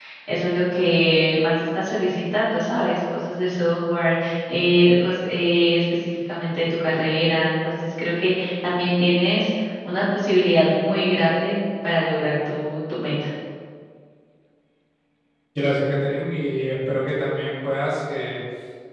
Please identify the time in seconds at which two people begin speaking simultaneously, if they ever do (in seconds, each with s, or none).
none